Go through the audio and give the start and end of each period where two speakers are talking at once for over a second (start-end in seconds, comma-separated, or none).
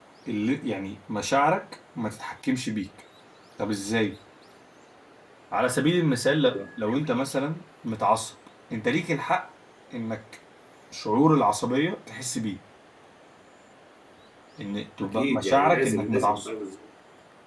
15.0-16.5